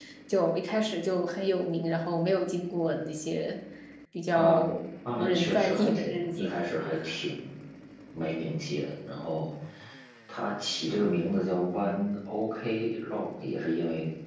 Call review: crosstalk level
present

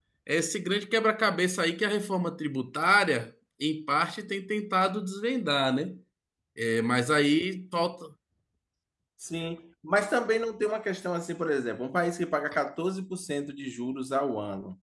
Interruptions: none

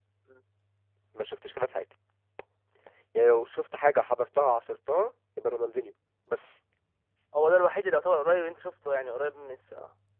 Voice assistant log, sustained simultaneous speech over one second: none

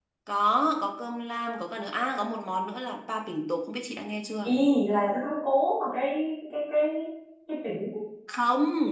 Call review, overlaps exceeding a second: none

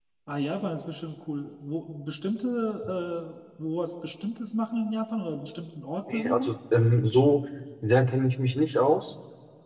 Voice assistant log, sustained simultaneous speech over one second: none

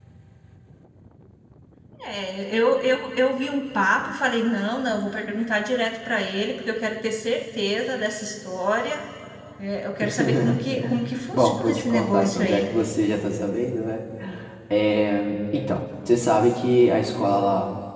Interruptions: present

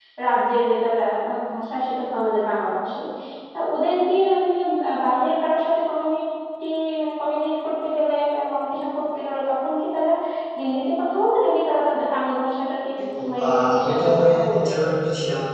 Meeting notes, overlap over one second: present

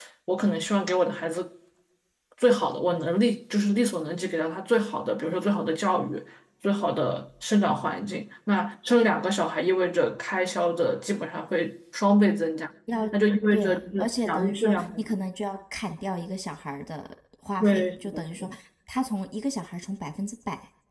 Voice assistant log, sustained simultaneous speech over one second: present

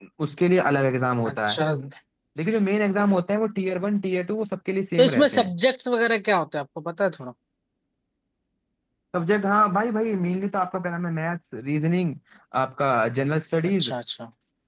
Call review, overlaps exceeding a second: none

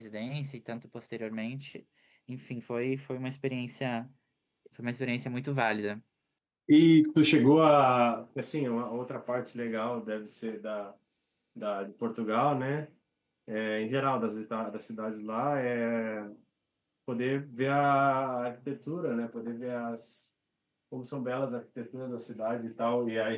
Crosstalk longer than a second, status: none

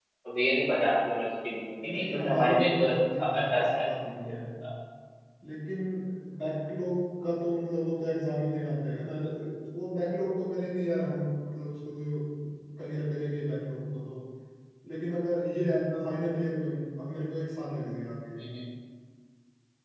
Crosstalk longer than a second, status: present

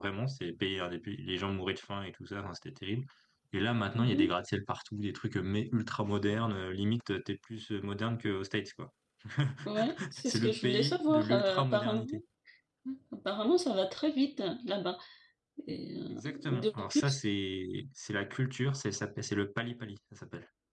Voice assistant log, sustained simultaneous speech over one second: present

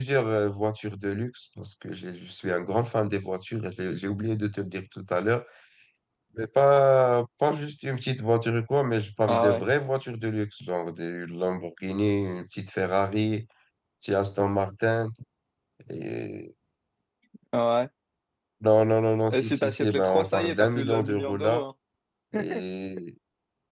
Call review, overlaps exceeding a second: present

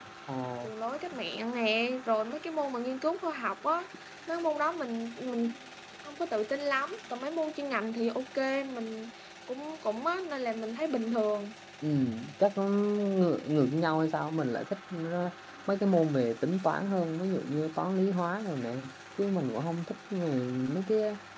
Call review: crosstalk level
none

